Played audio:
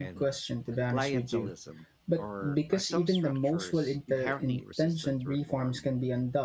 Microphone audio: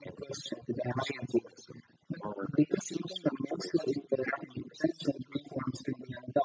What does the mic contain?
echo only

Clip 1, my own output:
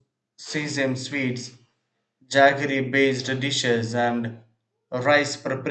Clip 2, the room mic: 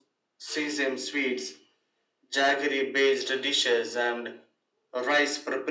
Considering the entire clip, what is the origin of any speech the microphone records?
echo only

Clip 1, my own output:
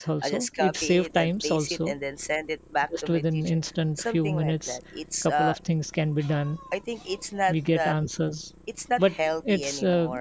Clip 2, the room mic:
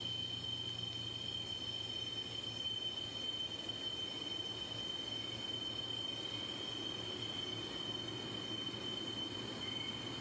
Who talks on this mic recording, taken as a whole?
neither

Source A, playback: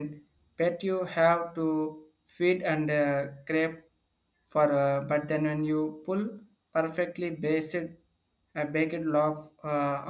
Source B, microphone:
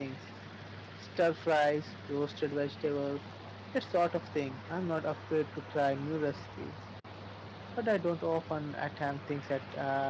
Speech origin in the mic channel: user only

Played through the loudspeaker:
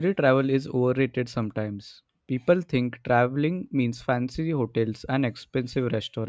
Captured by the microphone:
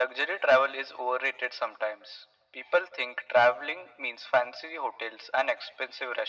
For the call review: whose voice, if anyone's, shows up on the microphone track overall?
echo only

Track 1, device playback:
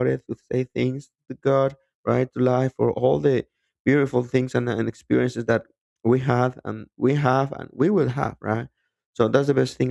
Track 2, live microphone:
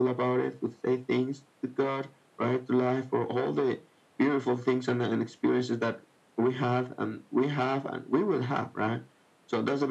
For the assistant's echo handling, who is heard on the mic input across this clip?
echo only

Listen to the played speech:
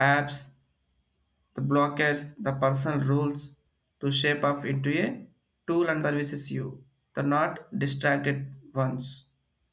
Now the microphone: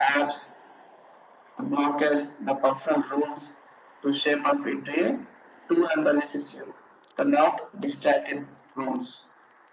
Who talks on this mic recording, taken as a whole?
echo only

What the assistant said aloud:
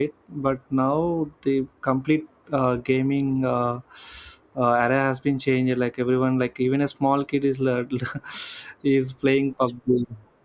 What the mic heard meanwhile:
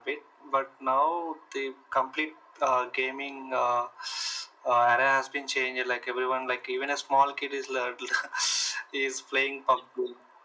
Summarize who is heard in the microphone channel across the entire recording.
echo only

